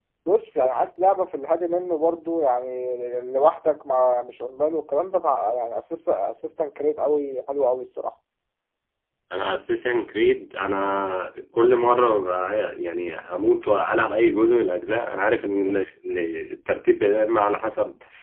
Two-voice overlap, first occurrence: none

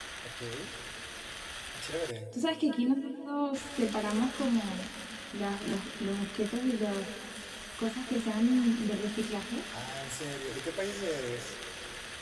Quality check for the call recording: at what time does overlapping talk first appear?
none

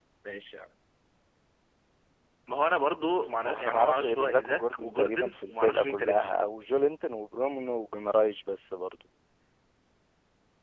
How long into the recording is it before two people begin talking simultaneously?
3.4 s

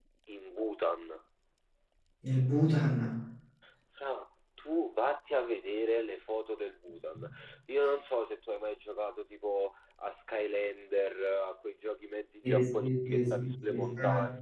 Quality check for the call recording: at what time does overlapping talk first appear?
12.4 s

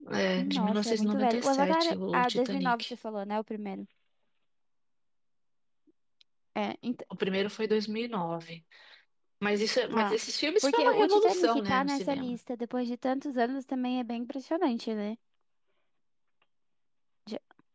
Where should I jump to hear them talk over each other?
0.6 s

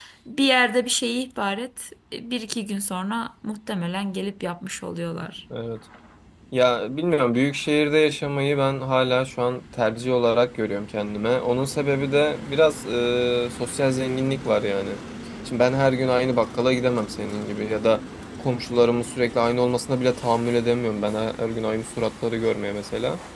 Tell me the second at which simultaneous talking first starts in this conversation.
none

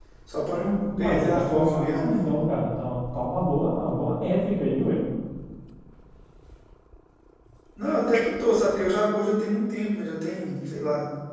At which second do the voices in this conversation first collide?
1.0 s

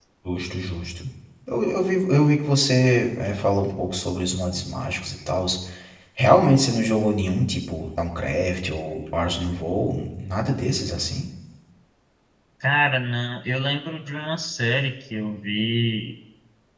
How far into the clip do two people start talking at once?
none

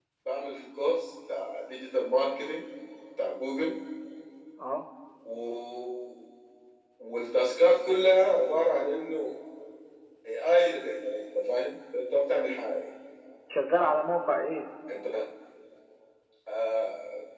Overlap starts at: none

